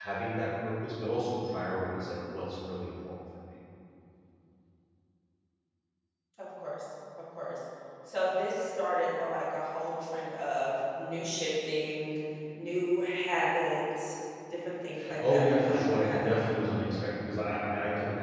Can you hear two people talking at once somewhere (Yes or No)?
Yes